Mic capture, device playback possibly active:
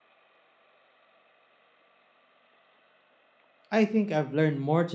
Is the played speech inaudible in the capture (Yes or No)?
Yes